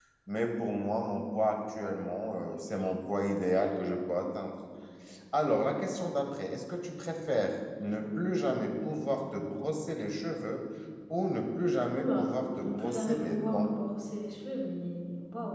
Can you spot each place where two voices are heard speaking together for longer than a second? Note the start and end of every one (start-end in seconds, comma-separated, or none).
12.0-13.7